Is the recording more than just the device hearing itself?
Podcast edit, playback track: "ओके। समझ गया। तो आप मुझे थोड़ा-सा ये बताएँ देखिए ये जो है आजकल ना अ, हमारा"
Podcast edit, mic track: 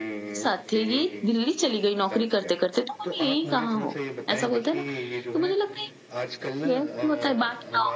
Yes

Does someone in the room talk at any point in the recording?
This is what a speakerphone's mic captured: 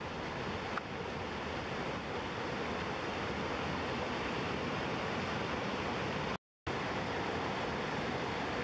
No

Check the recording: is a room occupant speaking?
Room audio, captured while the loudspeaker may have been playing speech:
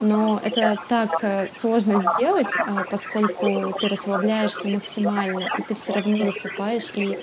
Yes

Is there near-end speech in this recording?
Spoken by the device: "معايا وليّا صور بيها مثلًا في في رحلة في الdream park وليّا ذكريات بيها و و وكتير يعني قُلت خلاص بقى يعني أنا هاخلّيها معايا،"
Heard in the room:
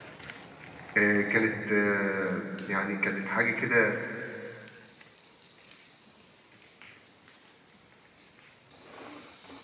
Yes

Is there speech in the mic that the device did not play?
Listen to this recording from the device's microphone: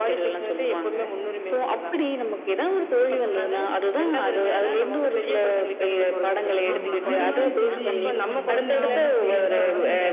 Yes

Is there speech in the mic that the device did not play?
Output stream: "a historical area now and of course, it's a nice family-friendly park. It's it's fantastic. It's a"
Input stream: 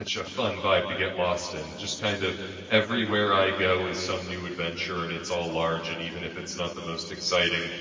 Yes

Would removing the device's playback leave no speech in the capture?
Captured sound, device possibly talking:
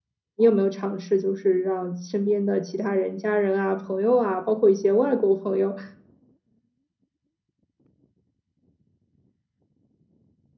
No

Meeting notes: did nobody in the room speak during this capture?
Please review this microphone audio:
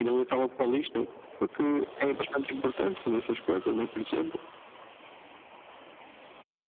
Yes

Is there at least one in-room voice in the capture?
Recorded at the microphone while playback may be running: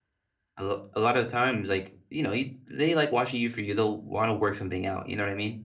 Yes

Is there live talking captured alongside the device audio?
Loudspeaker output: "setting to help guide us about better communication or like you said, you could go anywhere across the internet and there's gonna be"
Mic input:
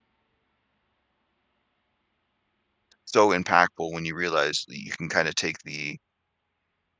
Yes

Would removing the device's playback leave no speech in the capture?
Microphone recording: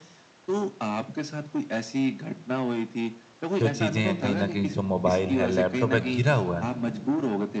No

